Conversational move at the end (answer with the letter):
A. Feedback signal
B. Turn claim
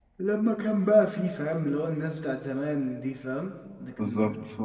B